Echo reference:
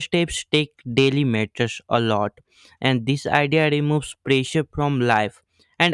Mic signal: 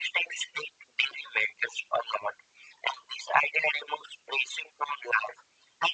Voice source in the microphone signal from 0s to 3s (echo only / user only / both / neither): echo only